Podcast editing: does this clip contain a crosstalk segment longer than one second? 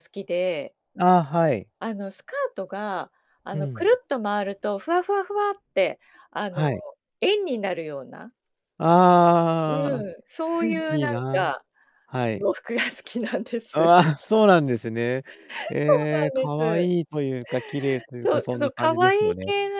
Yes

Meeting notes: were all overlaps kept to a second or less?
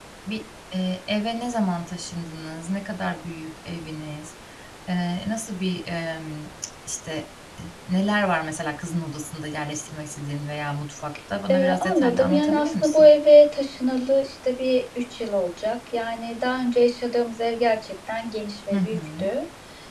No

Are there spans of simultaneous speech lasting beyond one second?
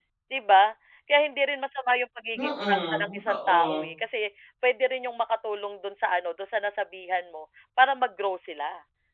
Yes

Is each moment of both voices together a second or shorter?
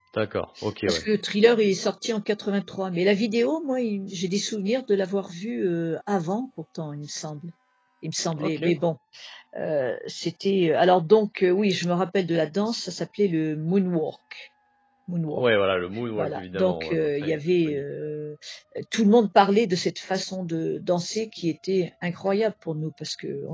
No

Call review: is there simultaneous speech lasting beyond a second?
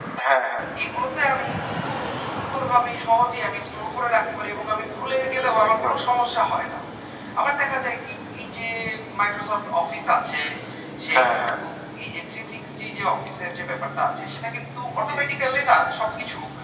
No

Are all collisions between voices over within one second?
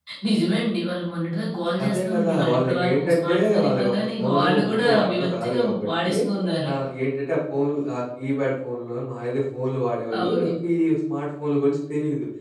No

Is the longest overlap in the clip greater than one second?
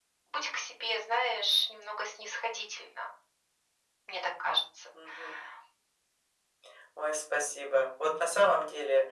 No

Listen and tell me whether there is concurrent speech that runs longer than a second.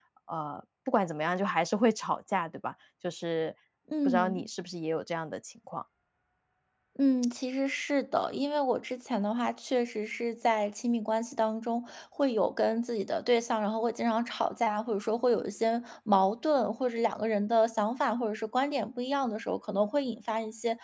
No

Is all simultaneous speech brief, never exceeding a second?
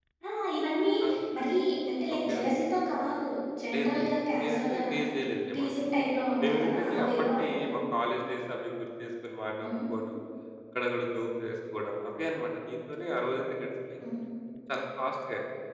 No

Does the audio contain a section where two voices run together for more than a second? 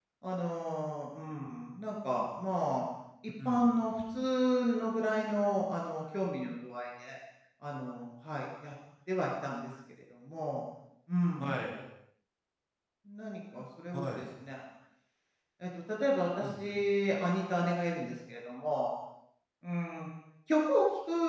No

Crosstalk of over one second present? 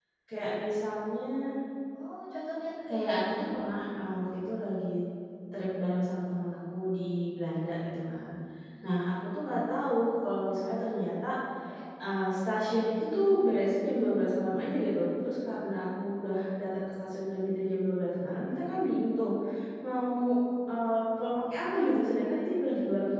No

